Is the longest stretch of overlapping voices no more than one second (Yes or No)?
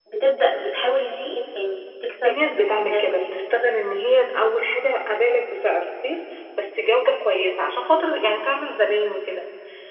No